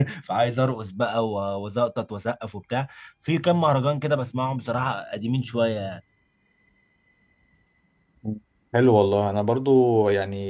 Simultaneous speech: No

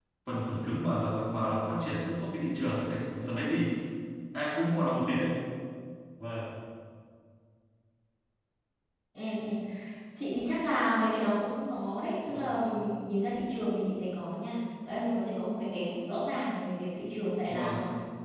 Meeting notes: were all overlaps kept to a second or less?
Yes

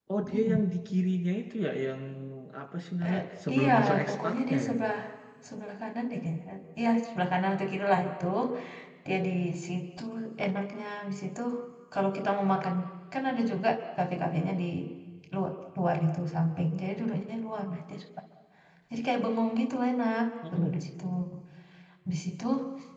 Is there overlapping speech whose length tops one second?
Yes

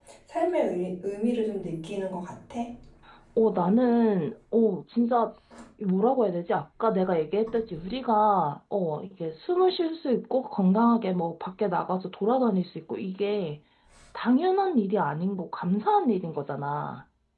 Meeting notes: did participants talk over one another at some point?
No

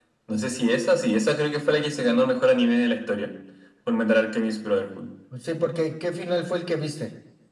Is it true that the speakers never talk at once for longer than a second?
Yes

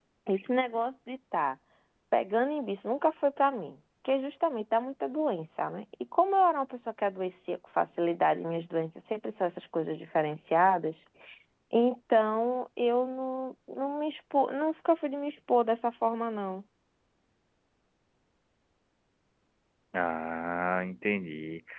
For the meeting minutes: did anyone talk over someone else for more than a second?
No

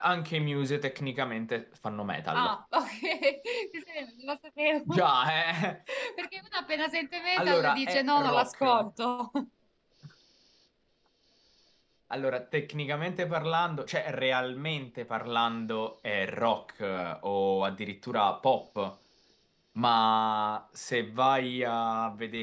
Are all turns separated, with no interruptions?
No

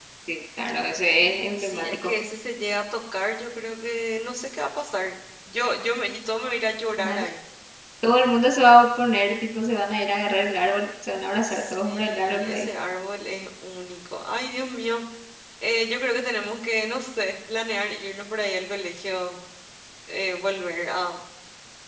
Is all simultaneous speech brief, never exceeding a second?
No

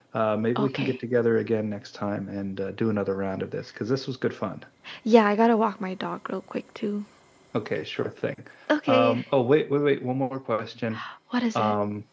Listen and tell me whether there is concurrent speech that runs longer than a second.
No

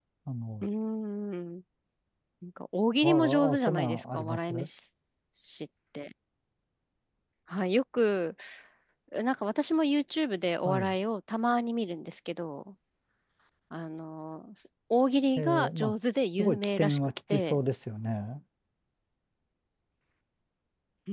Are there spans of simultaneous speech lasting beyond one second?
Yes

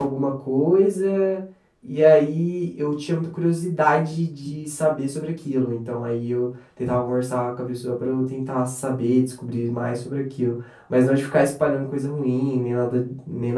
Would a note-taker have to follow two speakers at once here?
No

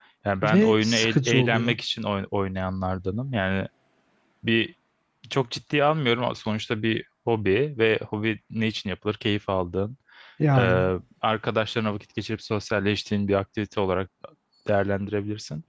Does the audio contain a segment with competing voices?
Yes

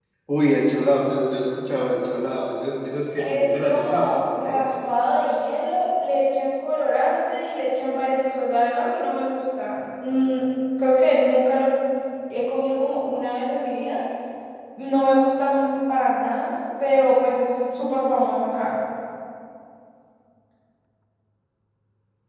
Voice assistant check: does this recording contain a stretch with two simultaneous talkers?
Yes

